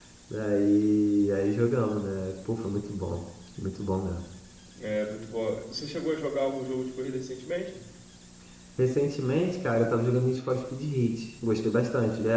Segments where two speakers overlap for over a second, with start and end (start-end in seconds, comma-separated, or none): none